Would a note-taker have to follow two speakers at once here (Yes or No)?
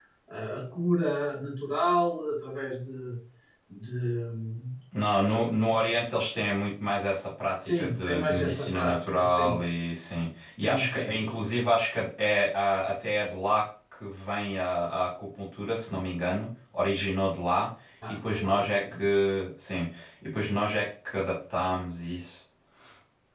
Yes